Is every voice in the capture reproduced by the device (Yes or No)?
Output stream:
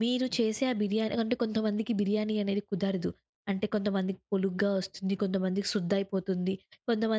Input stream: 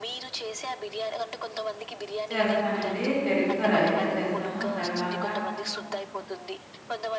No